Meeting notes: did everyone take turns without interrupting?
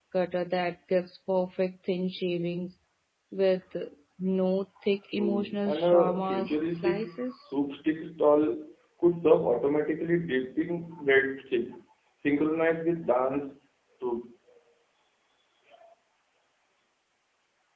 No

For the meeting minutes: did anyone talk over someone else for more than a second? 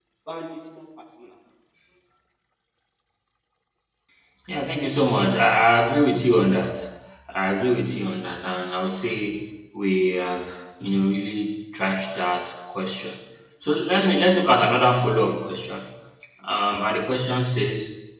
No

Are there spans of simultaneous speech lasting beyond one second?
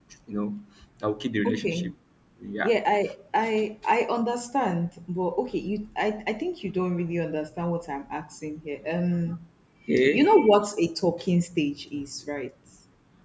No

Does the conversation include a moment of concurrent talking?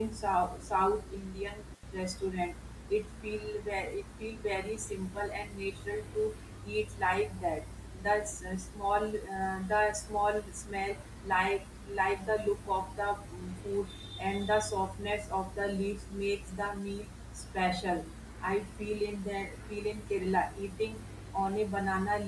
No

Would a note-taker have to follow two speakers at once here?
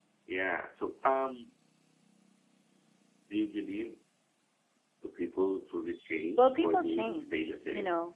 Yes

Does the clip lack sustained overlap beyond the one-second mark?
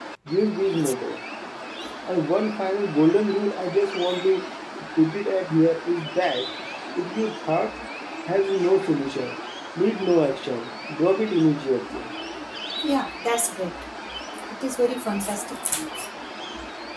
Yes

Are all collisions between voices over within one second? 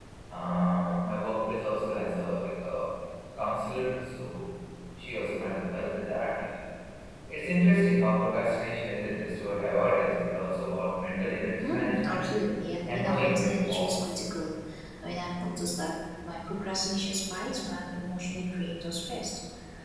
No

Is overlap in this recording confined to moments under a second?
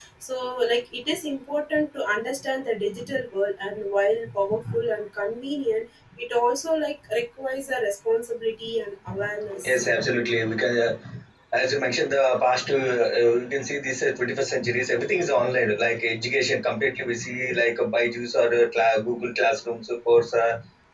Yes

